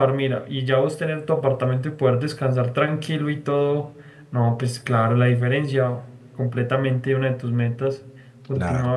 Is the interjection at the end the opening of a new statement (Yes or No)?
Yes